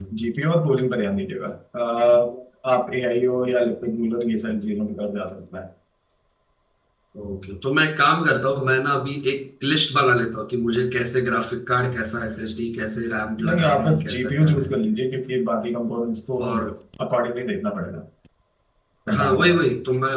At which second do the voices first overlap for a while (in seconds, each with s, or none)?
13.5 s